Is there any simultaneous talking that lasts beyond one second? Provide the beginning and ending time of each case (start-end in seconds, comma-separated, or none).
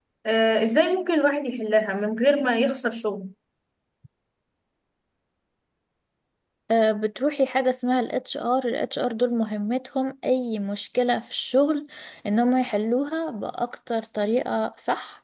none